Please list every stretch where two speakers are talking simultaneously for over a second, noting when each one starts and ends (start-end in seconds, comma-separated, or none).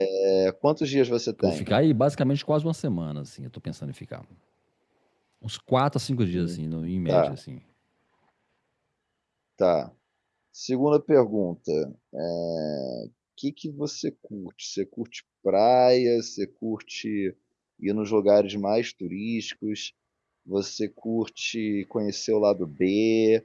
none